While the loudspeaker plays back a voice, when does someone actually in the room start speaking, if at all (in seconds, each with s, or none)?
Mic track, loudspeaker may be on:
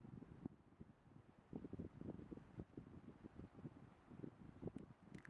none